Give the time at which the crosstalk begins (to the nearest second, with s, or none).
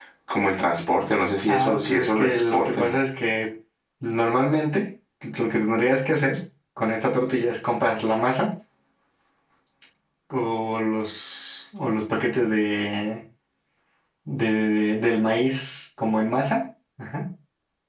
1 s